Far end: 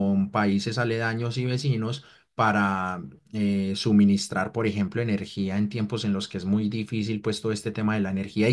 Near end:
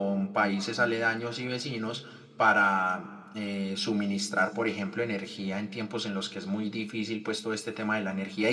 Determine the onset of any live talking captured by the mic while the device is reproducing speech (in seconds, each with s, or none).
none